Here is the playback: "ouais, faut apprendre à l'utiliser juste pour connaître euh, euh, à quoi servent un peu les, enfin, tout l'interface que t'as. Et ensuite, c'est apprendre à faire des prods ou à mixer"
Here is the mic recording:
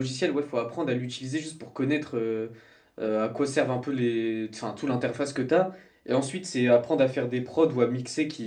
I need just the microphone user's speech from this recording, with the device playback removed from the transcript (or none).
none